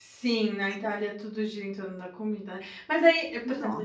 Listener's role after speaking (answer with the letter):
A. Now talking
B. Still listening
B